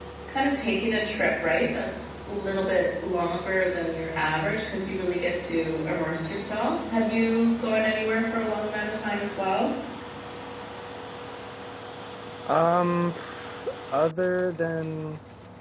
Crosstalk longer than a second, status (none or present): none